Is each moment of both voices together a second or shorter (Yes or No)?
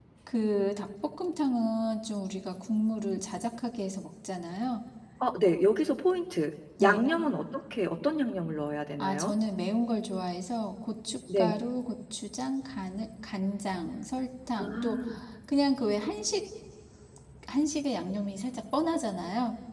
Yes